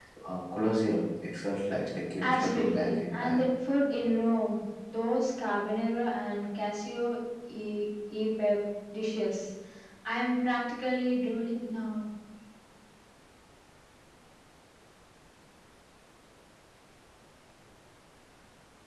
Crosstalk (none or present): present